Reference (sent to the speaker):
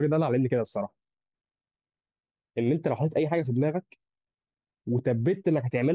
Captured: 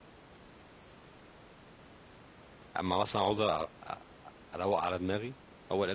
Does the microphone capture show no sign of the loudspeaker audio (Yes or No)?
Yes